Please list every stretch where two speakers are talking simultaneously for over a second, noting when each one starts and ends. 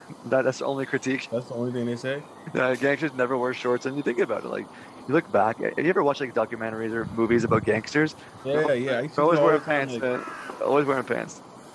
8.5-10.1

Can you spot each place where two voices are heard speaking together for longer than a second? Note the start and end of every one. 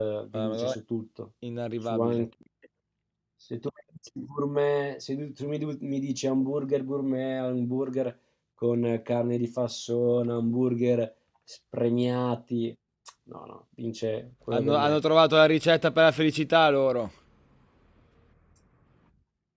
none

